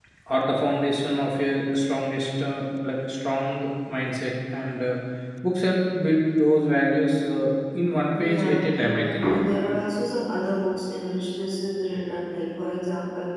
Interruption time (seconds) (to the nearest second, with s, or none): 8 s